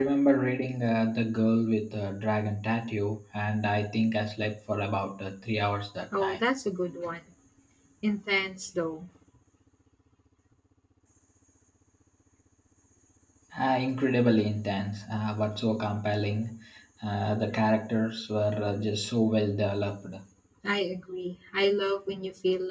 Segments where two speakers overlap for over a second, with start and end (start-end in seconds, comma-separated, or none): none